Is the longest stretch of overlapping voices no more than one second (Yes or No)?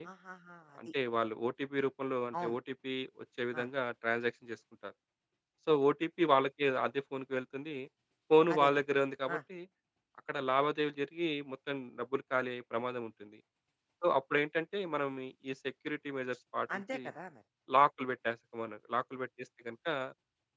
Yes